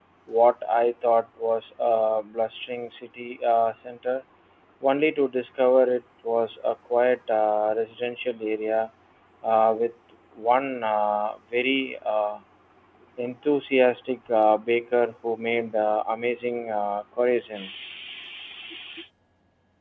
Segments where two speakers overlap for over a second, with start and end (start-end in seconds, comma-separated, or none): none